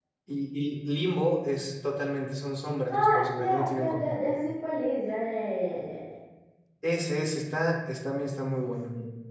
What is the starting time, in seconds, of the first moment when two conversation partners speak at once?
2.9 s

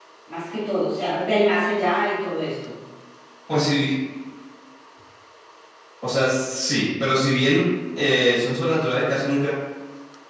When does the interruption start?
none

